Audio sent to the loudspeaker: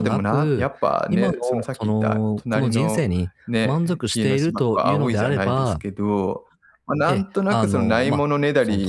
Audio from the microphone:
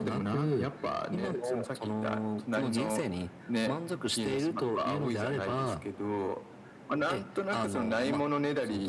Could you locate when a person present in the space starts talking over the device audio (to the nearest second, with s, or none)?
none